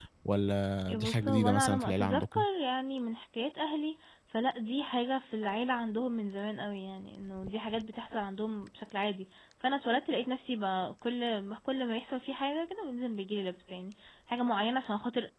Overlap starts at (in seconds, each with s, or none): 0.9 s